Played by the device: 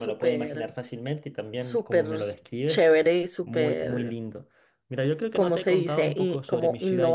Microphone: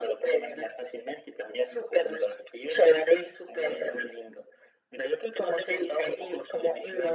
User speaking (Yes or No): No